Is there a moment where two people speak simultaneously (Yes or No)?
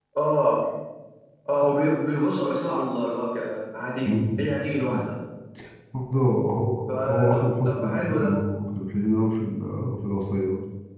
Yes